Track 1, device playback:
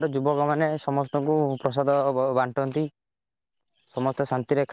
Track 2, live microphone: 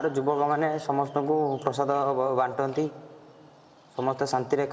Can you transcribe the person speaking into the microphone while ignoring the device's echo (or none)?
none